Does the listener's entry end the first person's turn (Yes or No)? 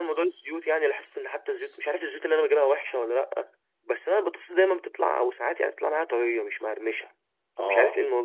Yes